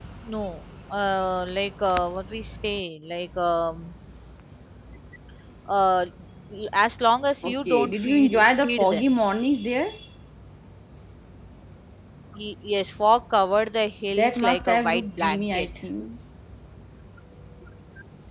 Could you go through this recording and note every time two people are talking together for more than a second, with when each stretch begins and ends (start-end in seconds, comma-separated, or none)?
7.5-9.0, 14.1-15.7